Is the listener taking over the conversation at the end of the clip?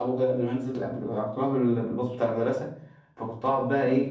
No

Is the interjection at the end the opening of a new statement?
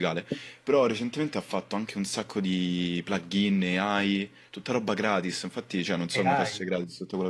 No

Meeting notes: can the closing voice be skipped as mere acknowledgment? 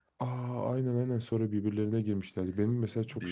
Yes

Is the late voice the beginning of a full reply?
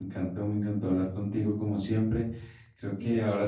No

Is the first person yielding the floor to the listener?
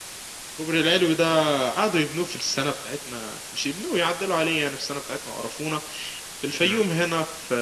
No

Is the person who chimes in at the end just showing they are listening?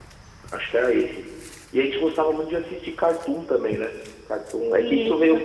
Yes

